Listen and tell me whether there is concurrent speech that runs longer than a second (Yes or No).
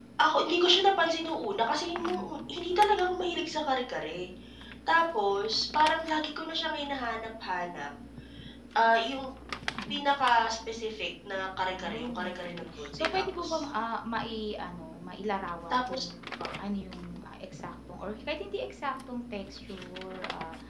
Yes